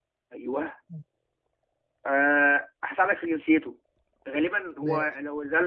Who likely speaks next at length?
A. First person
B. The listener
A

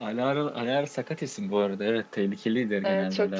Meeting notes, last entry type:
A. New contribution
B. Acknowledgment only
A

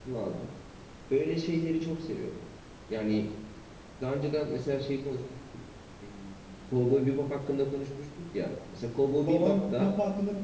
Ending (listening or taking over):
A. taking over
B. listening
A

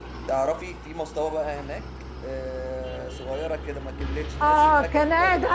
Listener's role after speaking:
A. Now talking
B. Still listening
A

